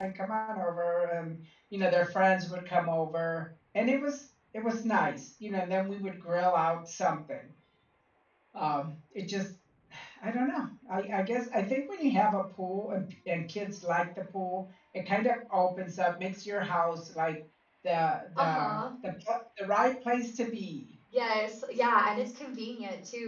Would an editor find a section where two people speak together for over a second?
No

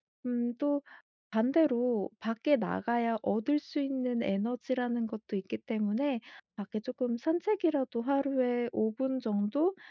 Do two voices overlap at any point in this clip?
No

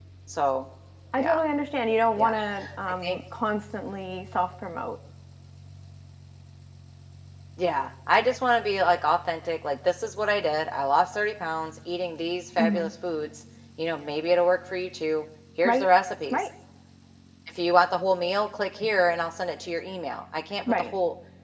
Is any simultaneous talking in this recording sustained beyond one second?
No

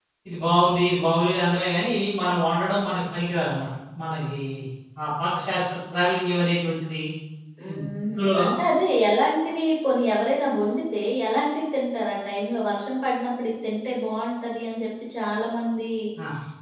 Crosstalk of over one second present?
No

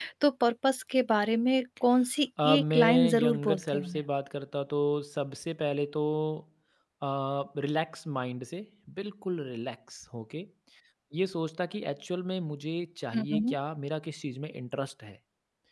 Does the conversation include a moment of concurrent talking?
Yes, from 2.4 s

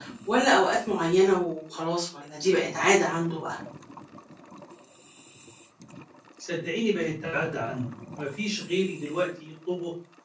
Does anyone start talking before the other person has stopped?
No

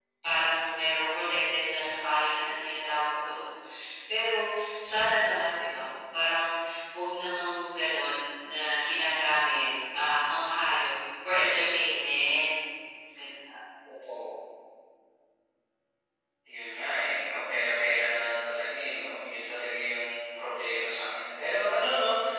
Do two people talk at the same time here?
No

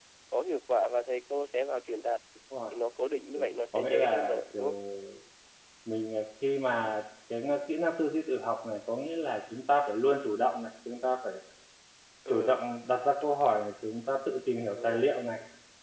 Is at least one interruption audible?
Yes, from 3.3 s

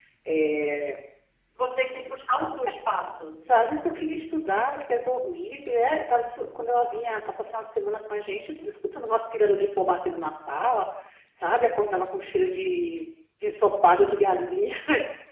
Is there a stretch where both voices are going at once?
No

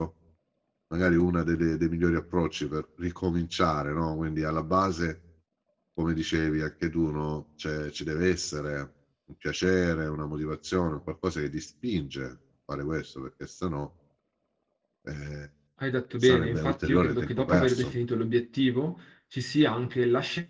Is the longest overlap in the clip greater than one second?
Yes, from 16.2 s

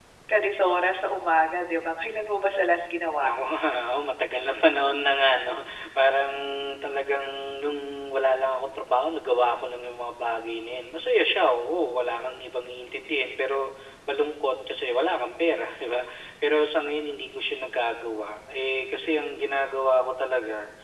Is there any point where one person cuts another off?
No

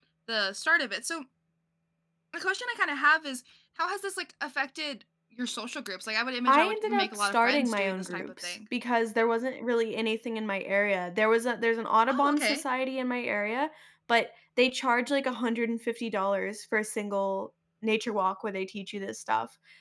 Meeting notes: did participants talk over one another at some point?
Yes, from 6.5 s

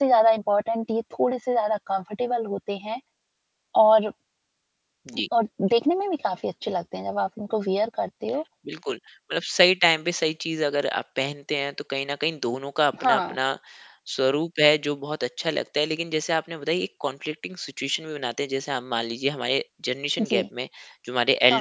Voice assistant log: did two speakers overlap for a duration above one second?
No

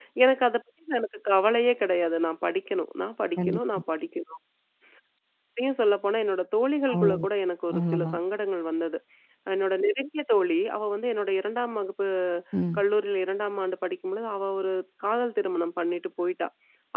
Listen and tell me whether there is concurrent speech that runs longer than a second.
No

